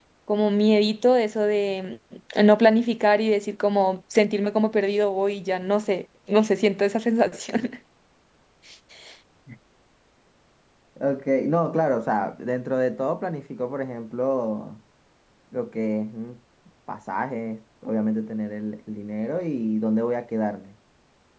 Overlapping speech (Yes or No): No